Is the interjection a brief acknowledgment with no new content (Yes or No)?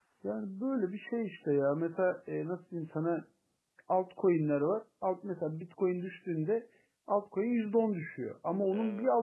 Yes